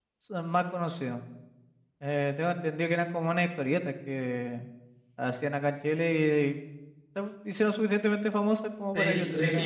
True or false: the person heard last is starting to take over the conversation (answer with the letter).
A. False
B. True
B